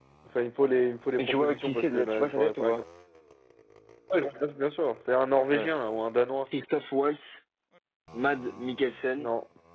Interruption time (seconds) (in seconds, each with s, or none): 1.2 s